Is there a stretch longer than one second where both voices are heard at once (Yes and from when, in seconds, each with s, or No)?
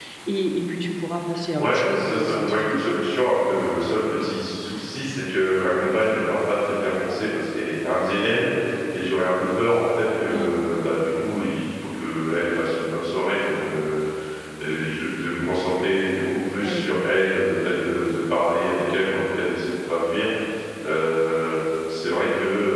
Yes, from 1.6 s